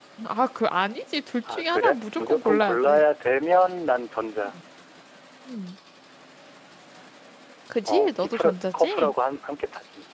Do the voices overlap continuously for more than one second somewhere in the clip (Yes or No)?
Yes